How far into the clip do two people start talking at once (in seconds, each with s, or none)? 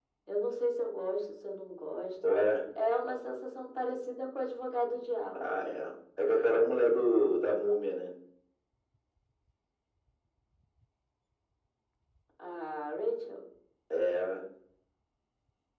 none